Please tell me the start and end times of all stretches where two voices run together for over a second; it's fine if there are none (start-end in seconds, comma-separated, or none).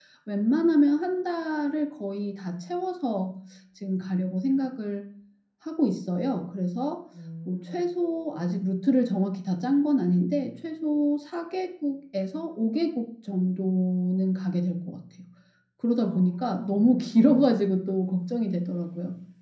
16.0-17.6